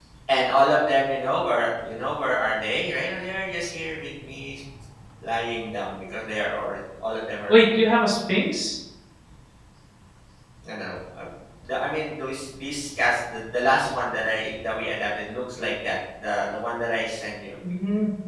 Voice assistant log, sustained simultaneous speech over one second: none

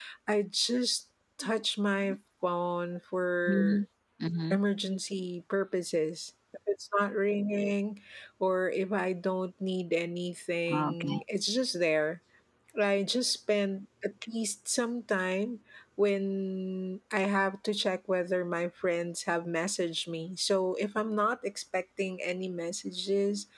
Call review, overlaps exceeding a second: none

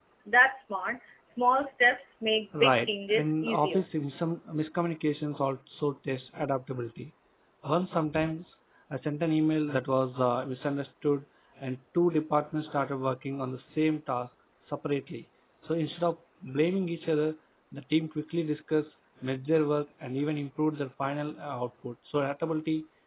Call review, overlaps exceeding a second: present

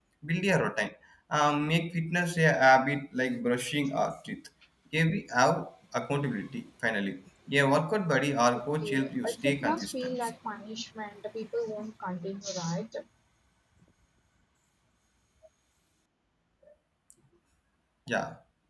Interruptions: present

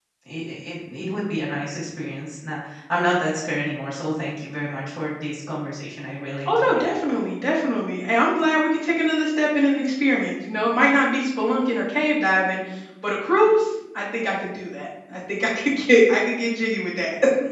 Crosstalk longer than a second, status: none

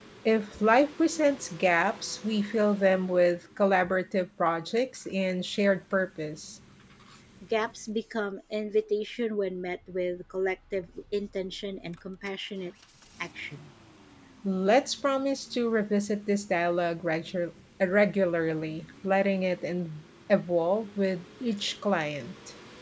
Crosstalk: none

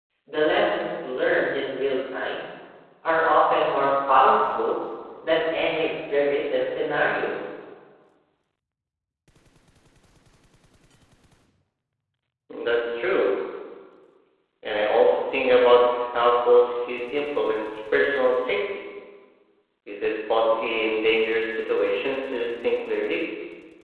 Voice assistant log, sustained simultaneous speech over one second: none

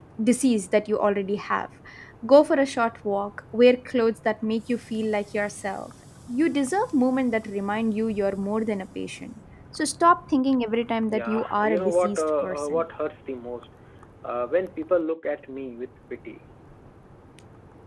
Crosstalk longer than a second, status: present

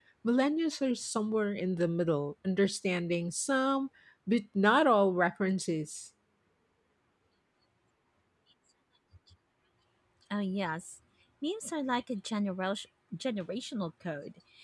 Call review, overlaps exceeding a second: none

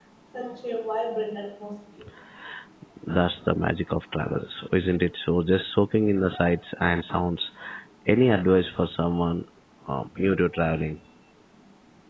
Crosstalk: none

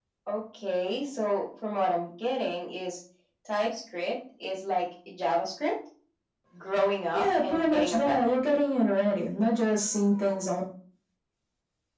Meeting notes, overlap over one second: present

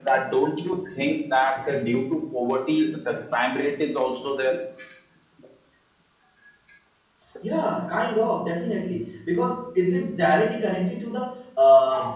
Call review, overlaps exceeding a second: none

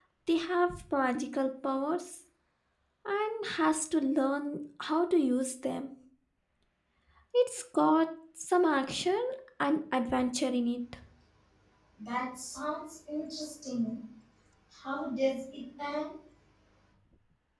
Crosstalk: none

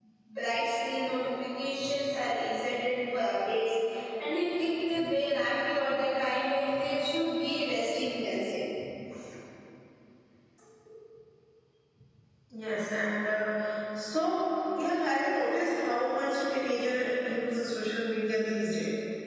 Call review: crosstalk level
none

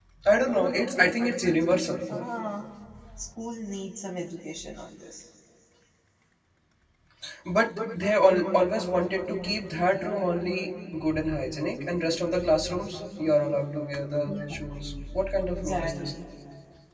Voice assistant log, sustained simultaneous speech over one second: none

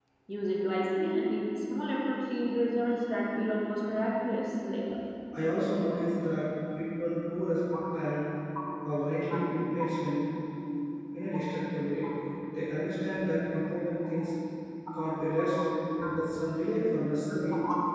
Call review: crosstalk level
none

